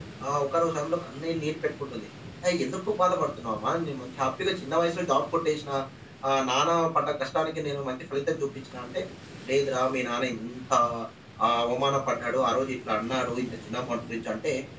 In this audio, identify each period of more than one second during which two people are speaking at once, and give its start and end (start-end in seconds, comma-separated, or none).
none